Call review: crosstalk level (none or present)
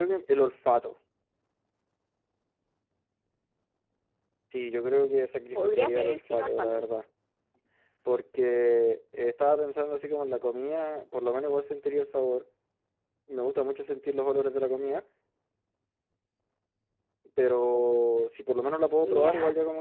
present